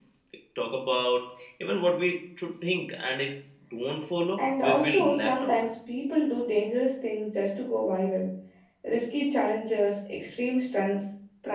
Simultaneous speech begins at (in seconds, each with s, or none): 4.4 s